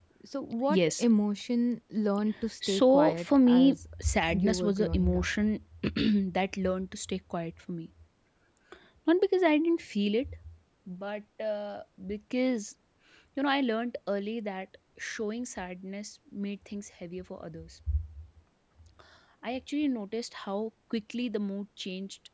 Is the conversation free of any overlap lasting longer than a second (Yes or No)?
No